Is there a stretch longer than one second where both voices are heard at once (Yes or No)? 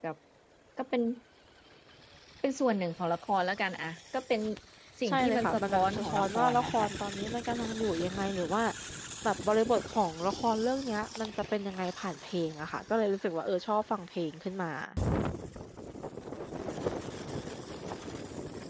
Yes